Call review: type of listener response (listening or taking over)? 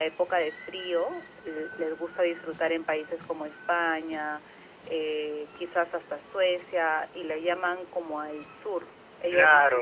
taking over